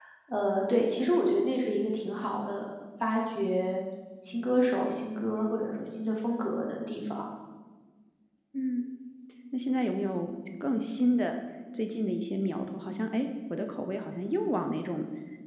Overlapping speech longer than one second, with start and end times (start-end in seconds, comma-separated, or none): none